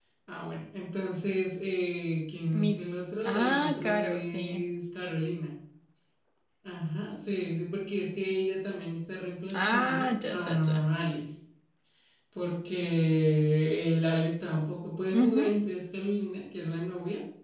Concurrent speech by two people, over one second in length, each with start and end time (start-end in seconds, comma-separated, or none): 2.5-4.6, 9.5-10.8